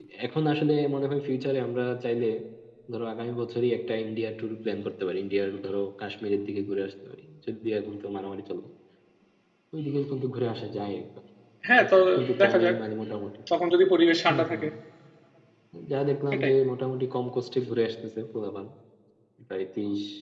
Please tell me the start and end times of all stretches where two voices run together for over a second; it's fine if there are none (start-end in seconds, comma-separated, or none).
none